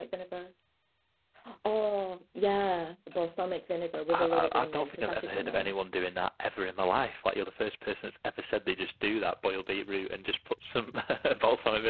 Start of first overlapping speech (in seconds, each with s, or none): 4.1 s